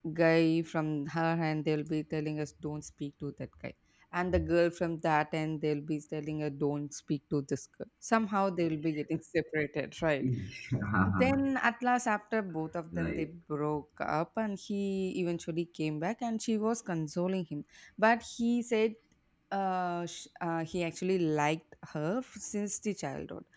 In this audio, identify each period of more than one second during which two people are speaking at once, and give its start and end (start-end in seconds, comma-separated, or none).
none